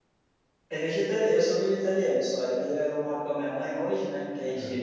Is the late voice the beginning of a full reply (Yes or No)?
No